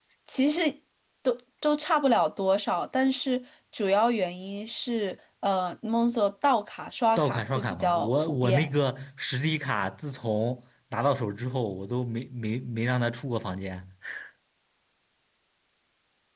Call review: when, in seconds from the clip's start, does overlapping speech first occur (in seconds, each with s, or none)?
7.2 s